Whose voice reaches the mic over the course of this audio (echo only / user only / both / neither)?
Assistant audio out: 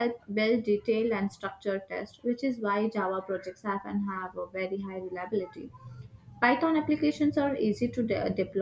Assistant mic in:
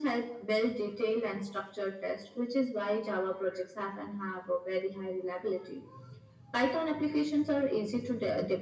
echo only